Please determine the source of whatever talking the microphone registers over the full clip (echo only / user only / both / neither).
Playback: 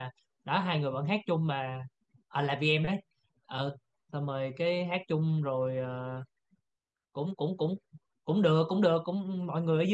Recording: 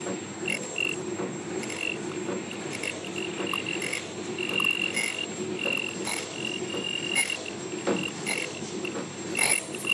neither